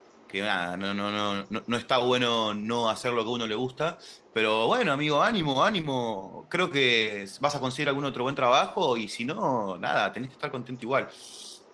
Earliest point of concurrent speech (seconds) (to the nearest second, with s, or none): none